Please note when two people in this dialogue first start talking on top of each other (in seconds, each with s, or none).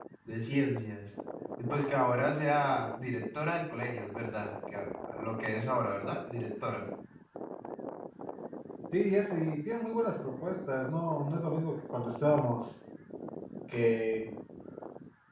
none